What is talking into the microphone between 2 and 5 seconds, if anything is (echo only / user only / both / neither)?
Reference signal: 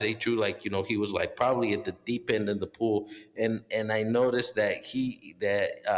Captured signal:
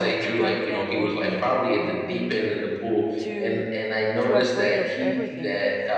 both